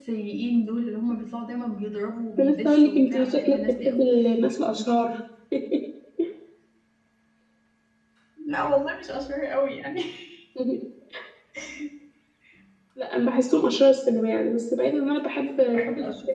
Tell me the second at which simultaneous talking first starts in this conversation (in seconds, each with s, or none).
2.4 s